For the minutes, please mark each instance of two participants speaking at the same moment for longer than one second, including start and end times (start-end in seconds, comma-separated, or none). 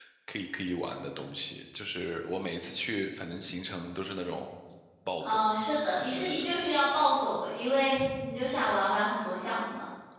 none